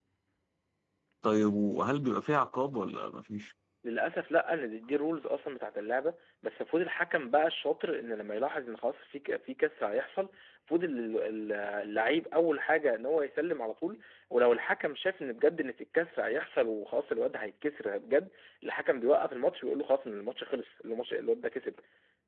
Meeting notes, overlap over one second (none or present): none